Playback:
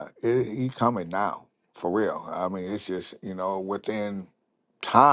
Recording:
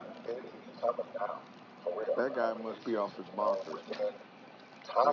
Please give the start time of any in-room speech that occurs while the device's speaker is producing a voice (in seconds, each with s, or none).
2.2 s